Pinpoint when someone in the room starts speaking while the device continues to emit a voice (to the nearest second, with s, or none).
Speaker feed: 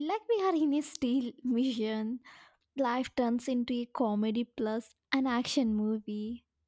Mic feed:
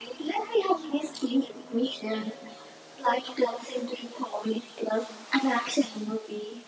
none